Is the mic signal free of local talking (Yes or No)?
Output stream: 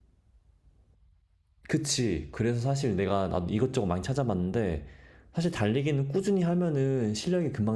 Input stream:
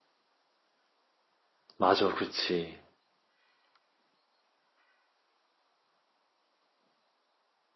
No